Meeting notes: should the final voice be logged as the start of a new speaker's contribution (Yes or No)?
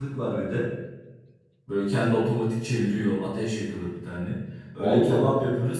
No